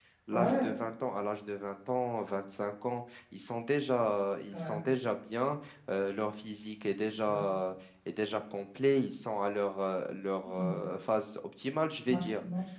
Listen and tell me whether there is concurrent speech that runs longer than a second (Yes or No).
No